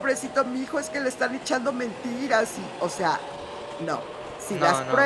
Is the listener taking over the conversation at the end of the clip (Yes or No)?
No